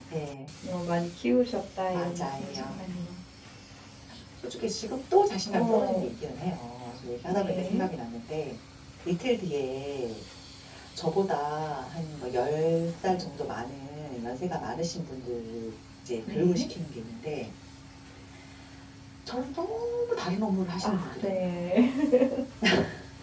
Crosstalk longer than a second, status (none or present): present